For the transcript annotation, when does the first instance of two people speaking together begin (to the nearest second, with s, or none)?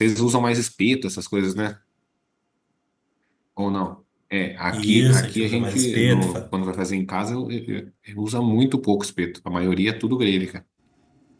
5 s